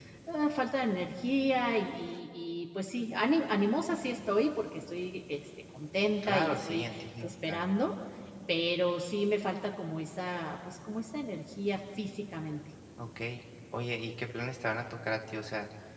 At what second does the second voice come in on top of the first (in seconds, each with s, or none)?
6.2 s